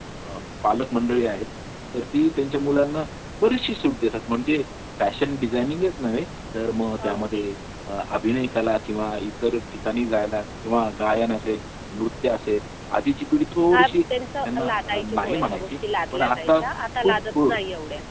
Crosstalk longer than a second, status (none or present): present